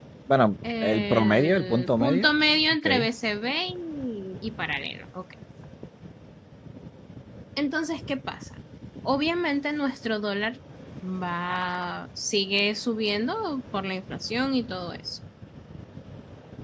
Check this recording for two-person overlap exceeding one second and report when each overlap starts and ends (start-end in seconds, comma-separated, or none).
0.8-2.3